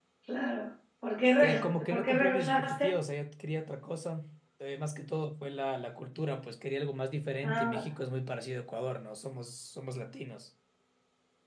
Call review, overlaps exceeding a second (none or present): present